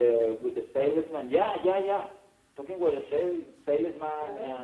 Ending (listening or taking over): listening